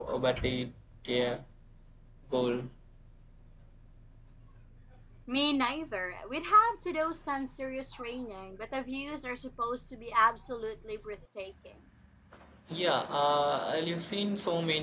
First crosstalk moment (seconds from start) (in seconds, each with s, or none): none